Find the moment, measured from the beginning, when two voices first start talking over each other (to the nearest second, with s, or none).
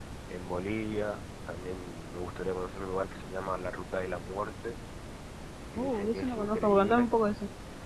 6 s